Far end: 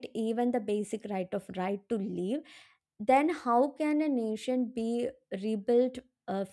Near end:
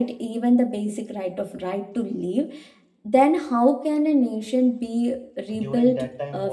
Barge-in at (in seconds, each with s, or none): 5.6 s